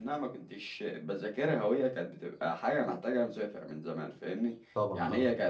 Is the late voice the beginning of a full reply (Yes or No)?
No